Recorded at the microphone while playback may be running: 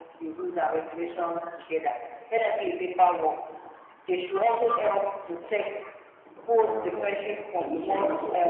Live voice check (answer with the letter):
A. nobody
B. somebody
B